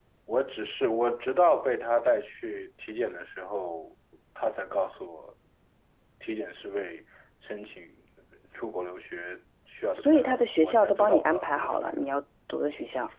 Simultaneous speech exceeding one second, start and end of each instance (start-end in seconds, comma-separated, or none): 9.9-11.8